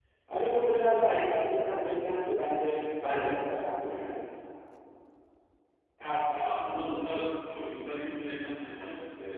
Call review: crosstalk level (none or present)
none